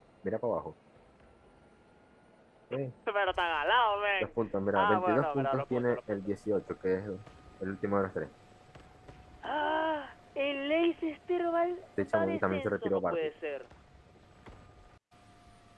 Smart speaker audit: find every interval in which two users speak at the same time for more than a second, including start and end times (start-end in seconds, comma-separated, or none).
4.8-6.9, 12.0-13.3